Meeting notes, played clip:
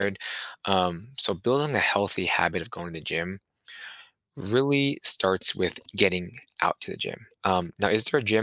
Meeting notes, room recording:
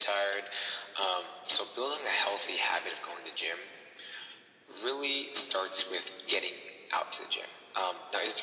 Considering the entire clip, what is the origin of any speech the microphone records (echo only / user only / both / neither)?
echo only